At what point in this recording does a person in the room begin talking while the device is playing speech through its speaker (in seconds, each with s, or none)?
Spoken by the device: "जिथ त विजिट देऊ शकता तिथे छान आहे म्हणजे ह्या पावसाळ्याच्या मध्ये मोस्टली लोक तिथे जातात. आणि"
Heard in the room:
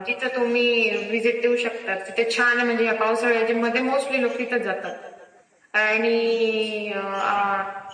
none